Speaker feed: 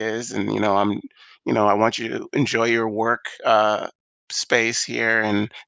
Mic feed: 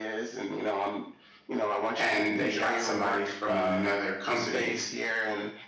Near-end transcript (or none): and they got somebody from another company,